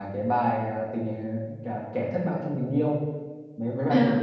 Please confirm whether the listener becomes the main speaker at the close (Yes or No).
No